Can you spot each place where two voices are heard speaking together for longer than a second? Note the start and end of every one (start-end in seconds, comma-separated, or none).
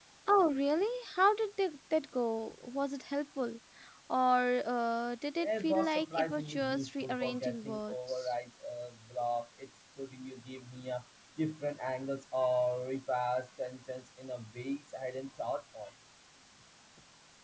5.4-8.3